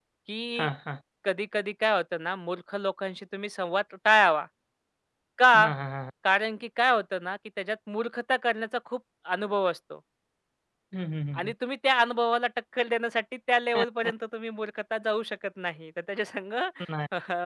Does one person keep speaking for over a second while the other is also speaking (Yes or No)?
No